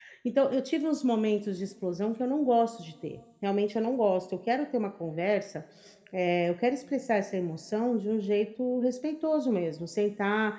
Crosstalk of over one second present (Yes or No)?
No